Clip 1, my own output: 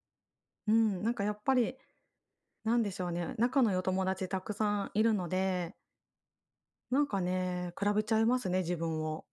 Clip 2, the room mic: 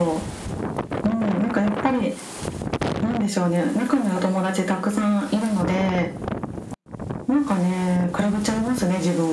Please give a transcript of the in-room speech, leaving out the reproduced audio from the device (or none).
none